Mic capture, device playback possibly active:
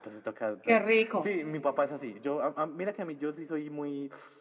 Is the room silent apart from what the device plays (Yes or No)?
No